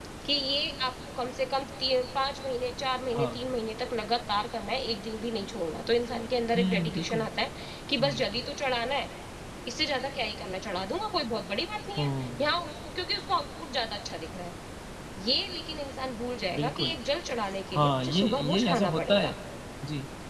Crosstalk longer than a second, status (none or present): present